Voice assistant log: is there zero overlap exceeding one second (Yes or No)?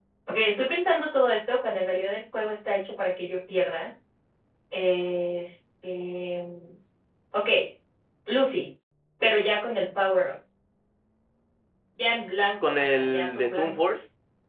No